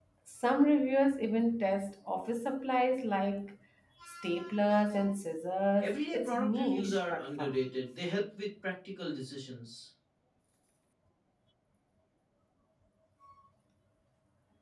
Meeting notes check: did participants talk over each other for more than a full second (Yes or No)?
Yes